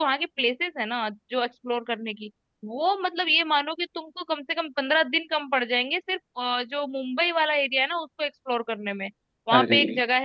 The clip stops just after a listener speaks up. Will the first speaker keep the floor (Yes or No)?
Yes